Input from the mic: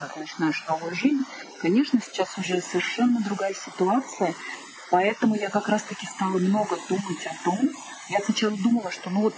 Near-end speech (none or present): none